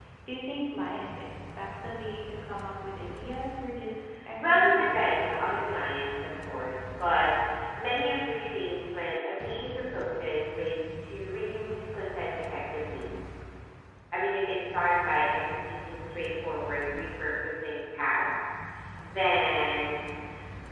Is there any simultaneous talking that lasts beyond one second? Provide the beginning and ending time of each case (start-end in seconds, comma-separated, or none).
4.4-5.7